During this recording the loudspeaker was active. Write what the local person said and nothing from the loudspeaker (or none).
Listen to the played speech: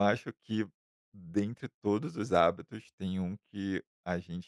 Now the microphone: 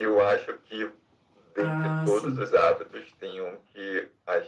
Ah, sim.